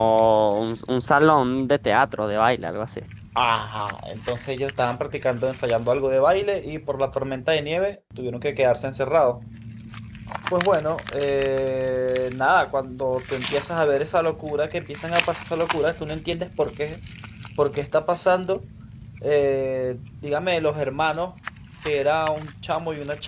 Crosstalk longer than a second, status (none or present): none